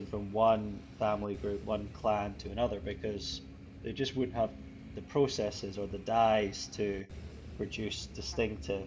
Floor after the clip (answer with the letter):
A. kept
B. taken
A